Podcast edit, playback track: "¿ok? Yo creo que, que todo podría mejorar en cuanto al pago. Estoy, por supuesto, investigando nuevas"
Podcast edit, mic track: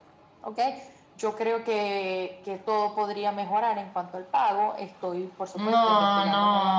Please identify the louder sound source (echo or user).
user